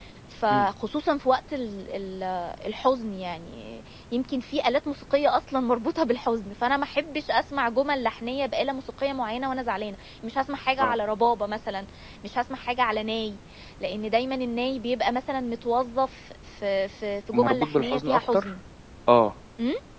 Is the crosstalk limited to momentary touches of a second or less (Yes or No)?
No